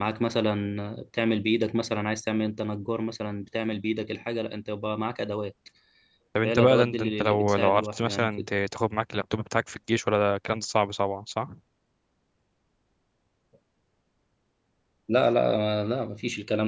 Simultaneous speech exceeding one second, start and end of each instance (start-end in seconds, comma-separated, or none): 6.5-8.4